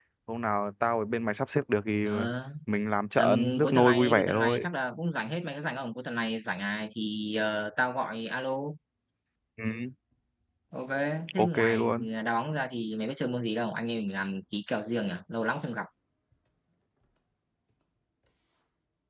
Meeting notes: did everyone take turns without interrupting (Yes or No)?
No